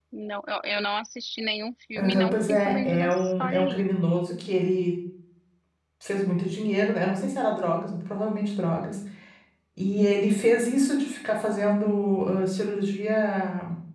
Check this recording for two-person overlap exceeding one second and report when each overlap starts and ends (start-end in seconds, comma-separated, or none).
2.0-3.9